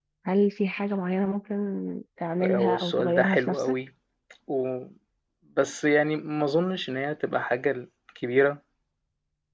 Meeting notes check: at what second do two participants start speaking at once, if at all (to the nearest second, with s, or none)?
2 s